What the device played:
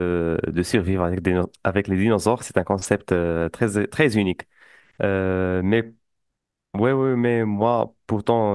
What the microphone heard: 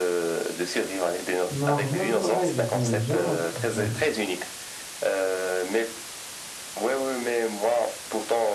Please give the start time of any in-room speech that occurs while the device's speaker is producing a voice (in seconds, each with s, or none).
1.5 s